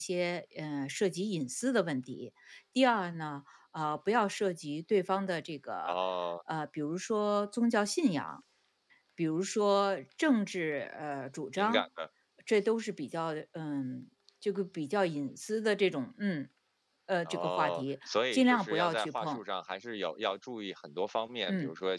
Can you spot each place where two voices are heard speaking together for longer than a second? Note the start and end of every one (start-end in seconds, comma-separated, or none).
17.2-19.4